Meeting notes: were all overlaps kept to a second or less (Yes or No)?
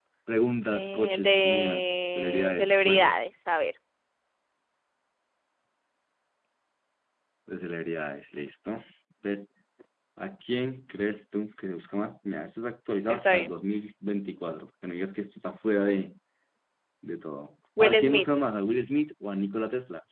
No